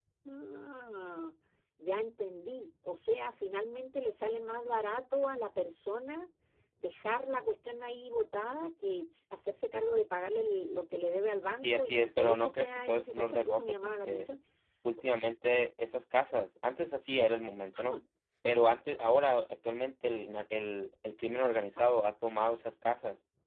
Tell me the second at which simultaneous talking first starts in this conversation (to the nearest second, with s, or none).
12 s